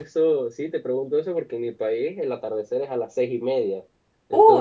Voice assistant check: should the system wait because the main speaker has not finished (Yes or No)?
No